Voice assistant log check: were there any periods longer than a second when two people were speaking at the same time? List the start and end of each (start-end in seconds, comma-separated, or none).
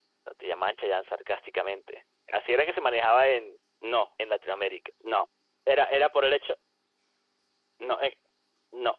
none